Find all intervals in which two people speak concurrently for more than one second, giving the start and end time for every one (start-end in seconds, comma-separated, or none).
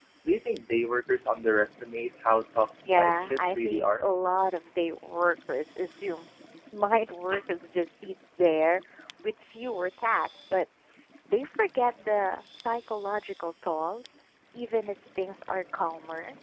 2.9-4.1